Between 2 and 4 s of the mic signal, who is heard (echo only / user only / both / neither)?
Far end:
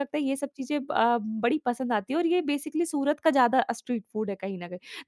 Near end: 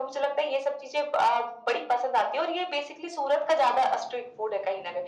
echo only